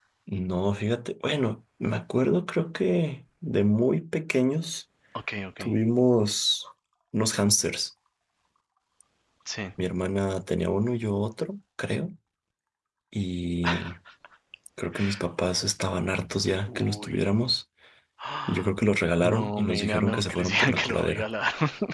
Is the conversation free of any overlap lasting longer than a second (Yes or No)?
No